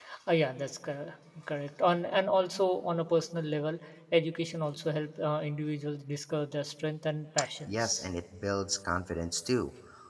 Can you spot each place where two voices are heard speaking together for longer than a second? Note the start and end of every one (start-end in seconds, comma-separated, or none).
none